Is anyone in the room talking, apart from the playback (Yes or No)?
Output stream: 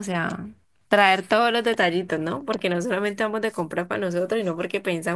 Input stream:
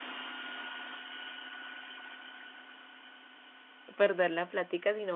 Yes